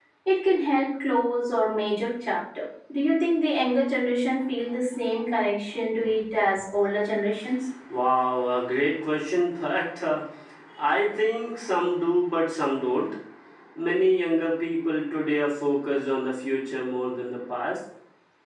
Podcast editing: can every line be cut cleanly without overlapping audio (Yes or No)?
Yes